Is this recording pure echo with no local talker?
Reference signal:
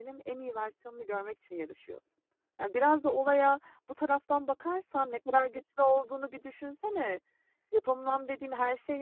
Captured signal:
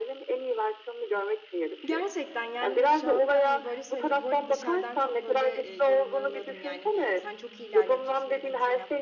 No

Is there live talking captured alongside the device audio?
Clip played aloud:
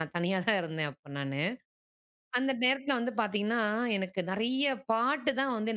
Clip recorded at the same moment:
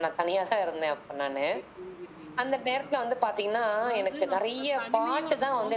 Yes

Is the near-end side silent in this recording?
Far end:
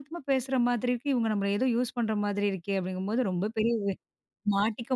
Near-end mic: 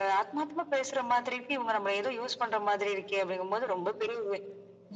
Yes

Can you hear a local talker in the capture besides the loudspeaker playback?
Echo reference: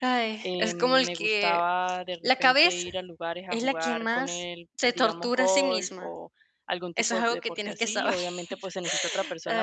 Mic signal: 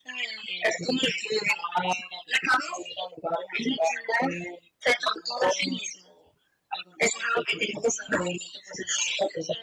No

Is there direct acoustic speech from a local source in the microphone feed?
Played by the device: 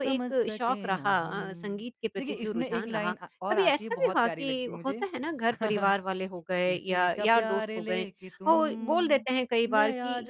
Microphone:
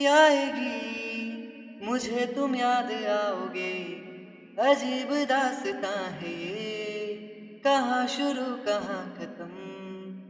Yes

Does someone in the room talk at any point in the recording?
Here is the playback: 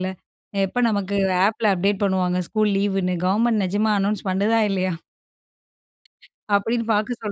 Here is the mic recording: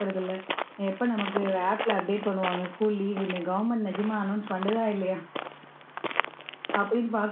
No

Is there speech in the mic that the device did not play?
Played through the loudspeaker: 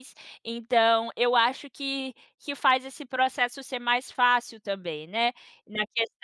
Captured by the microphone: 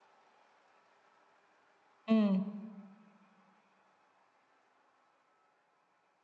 Yes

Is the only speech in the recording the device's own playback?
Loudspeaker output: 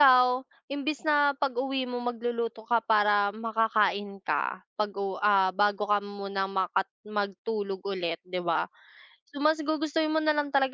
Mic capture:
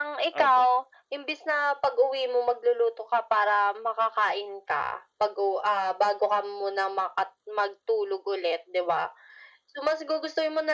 No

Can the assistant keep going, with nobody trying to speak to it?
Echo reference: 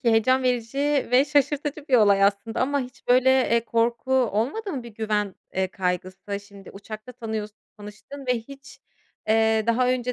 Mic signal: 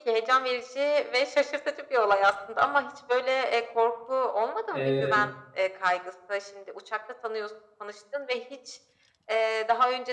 No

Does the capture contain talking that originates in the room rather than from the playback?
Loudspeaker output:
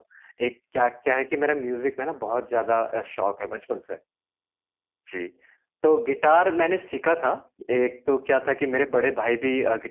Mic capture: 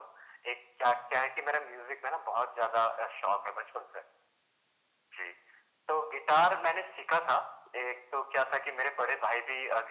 No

